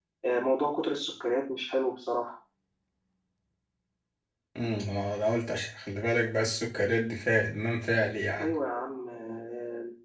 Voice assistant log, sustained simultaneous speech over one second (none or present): none